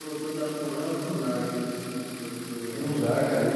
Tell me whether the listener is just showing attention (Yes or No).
No